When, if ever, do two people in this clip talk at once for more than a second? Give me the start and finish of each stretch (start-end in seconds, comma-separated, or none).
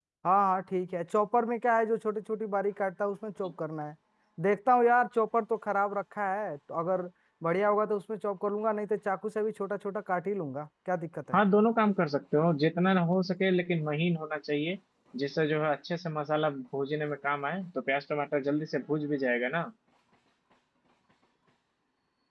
none